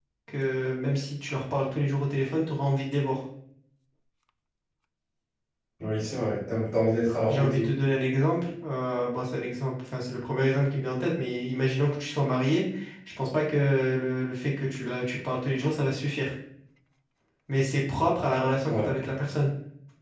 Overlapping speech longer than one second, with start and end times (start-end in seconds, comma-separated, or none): none